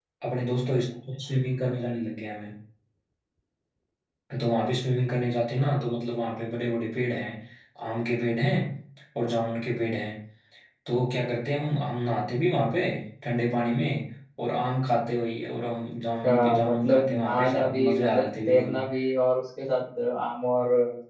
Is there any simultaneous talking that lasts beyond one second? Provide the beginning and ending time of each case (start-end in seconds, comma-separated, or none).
16.2-18.8